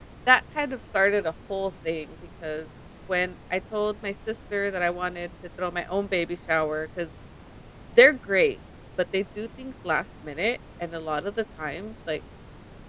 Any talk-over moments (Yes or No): No